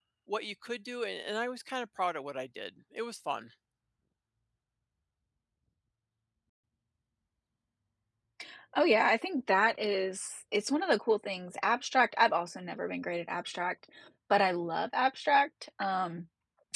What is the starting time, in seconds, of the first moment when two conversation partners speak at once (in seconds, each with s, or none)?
none